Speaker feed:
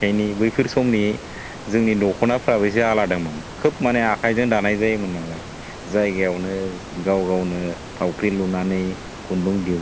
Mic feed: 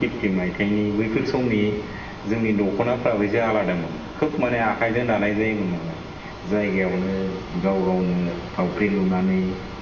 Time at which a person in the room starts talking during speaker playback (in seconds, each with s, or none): none